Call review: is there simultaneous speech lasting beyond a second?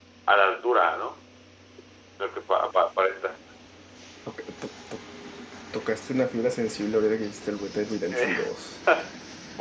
No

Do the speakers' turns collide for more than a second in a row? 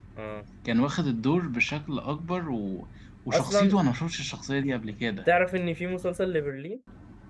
No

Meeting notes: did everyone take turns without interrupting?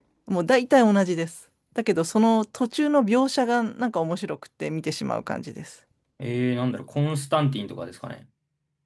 Yes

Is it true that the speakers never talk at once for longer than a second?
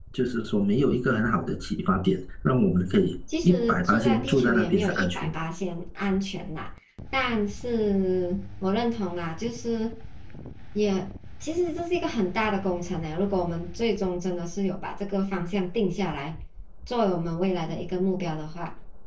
No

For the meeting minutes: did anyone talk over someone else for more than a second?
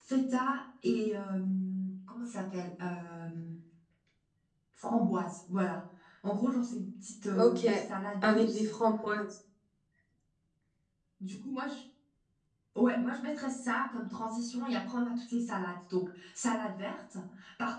No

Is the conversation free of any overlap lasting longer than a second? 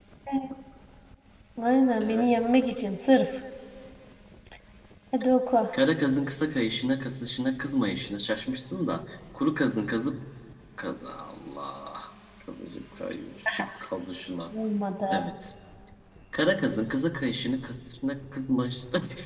Yes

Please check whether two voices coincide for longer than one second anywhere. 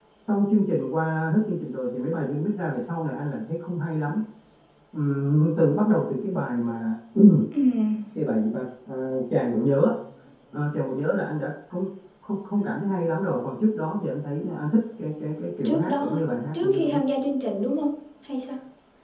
No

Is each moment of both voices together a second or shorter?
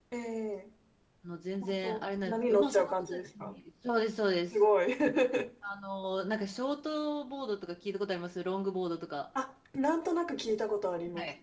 No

